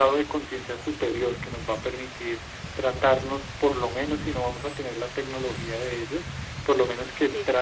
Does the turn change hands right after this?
No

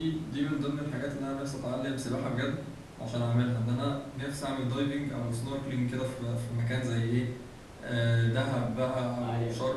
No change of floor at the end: Yes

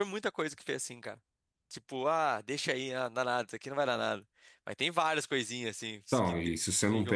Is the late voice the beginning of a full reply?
Yes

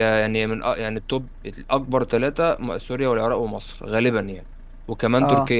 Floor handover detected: No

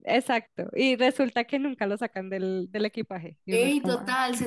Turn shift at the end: Yes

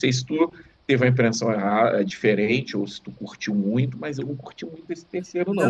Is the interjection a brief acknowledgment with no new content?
No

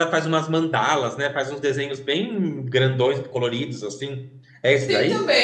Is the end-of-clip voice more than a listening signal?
Yes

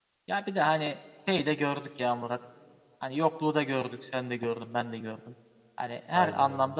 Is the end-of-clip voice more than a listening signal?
No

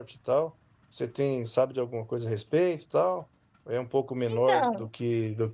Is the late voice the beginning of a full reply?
No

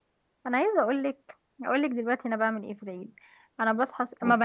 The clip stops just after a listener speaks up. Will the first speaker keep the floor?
Yes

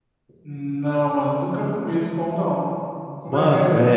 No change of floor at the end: No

